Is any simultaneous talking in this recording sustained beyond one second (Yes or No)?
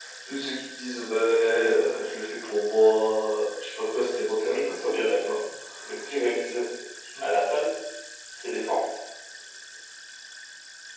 No